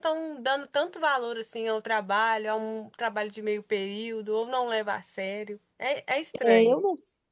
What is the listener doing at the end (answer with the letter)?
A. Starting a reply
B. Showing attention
A